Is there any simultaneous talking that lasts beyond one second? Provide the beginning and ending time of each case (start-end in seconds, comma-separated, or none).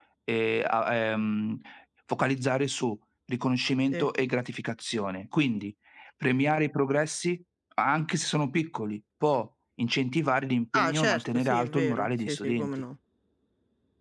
10.7-12.7